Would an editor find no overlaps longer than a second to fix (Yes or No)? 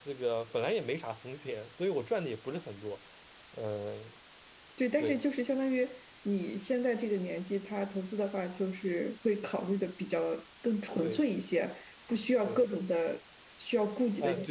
Yes